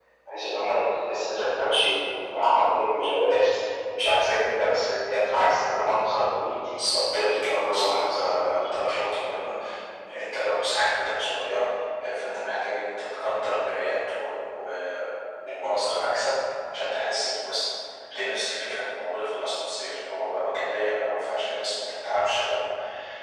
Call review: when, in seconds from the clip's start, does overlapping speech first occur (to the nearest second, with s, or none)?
7 s